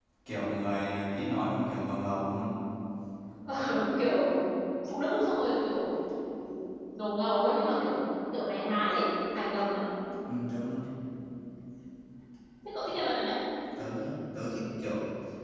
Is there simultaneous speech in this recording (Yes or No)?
No